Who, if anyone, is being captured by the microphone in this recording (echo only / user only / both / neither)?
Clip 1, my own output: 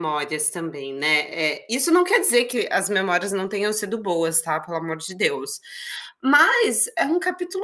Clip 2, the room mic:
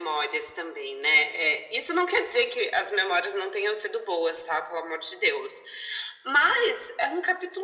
echo only